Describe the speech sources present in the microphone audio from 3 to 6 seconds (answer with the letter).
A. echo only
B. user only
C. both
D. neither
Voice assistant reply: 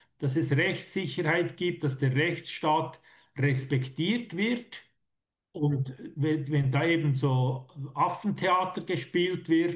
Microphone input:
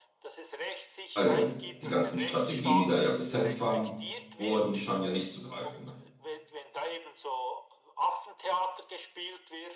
C